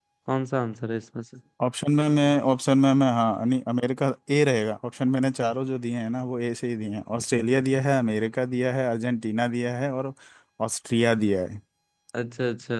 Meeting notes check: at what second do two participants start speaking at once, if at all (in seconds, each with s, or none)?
none